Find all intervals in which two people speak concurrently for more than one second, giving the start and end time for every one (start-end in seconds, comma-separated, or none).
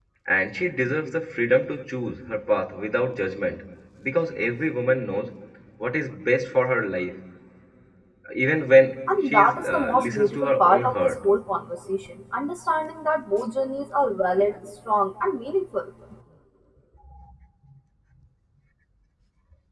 9.3-11.2